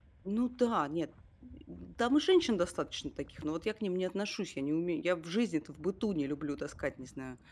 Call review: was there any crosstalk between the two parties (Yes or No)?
No